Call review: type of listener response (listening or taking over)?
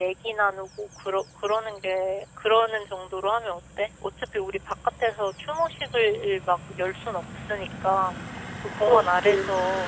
listening